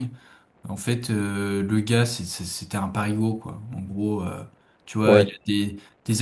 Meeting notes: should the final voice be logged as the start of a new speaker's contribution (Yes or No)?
No